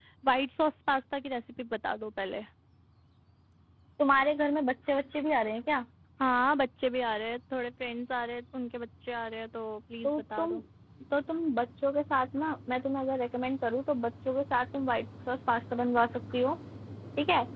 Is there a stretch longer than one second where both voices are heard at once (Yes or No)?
No